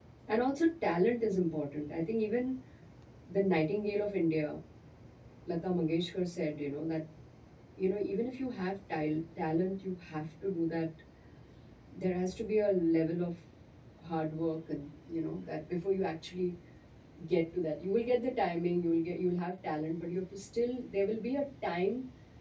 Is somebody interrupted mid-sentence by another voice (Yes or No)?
No